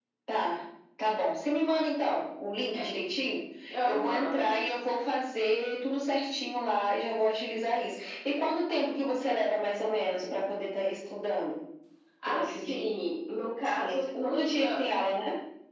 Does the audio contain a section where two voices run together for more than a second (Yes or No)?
Yes